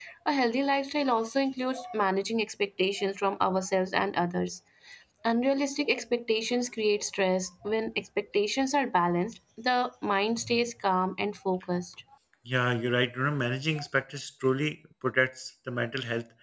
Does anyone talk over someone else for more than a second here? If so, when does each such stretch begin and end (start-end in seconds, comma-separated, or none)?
none